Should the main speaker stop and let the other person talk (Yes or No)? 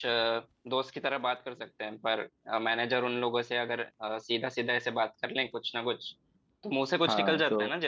Yes